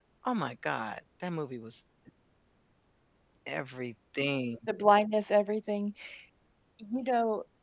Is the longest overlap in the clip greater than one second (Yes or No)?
No